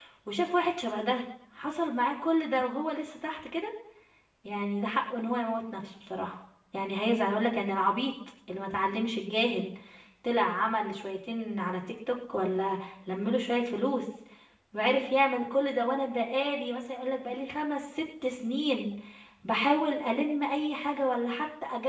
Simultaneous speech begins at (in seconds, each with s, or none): none